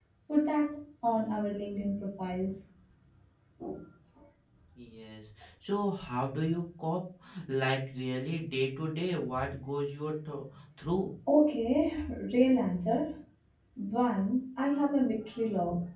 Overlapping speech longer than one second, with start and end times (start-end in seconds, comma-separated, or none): none